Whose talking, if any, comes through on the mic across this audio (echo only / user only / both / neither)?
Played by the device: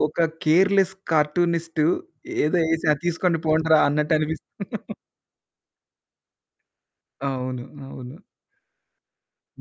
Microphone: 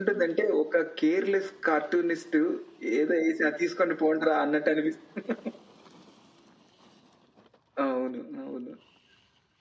echo only